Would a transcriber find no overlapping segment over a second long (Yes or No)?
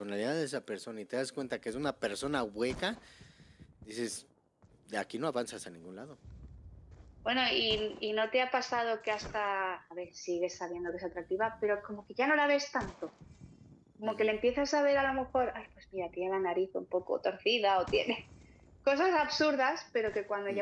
Yes